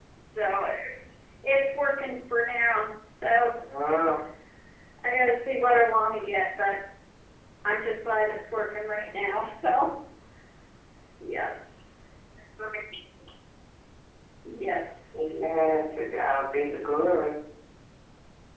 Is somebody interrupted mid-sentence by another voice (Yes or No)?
No